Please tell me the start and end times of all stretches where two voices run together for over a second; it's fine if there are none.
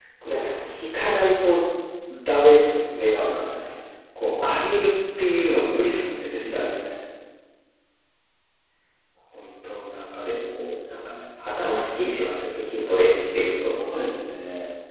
none

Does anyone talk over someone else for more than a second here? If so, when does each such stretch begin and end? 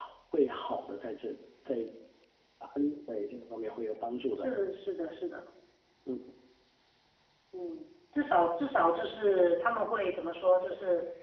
none

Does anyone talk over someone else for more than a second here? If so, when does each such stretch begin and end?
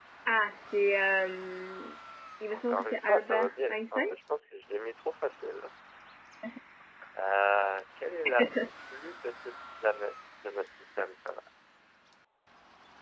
2.5-4.0

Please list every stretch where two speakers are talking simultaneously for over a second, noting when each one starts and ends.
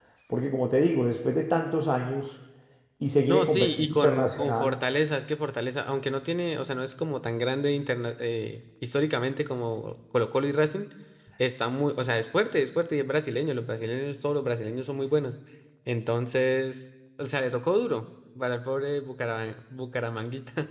3.3-4.7

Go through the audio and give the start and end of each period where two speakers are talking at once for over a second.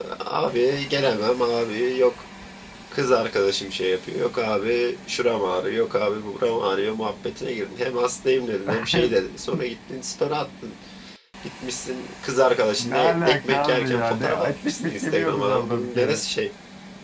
12.8-16.2

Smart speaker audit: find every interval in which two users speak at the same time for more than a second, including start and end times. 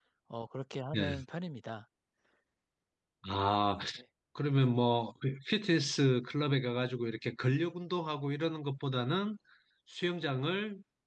none

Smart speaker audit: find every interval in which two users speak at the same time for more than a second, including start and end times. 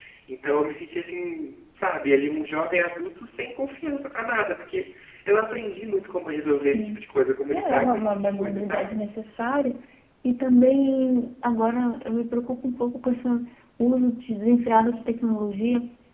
7.5-9.0

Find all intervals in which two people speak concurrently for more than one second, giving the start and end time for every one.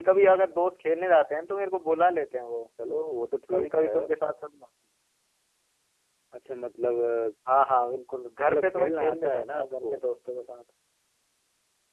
8.4-10.0

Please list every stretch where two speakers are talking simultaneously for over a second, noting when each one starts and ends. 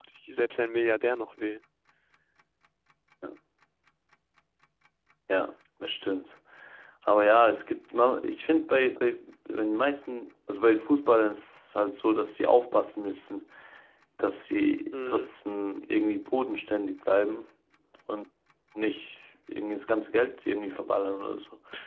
none

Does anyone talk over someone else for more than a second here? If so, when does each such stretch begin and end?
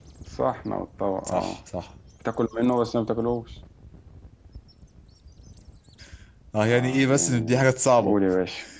6.7-8.2

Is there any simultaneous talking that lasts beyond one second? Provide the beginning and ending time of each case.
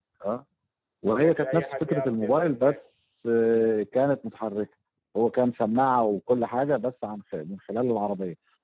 1.1-2.8

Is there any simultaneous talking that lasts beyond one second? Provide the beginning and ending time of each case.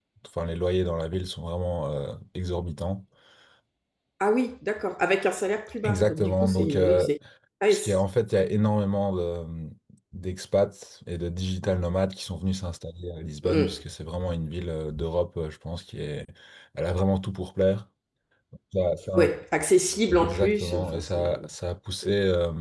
5.8-7.1, 20.2-21.5

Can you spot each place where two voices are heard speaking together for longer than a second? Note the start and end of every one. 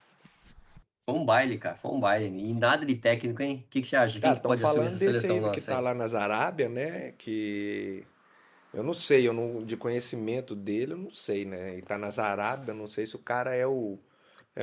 4.2-5.8

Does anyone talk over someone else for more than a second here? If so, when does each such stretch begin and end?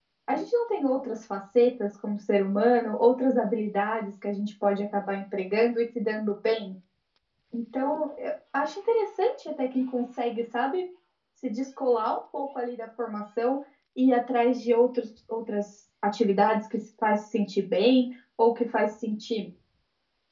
none

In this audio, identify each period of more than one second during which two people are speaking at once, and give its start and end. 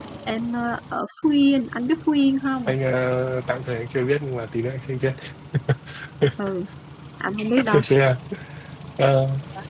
none

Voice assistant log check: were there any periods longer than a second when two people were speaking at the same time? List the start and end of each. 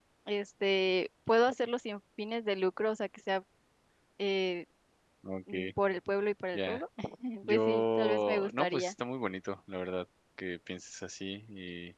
7.5-8.9

